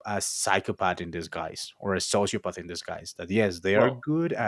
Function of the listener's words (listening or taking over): listening